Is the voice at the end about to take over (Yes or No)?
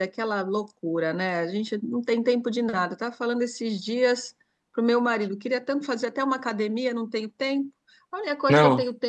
No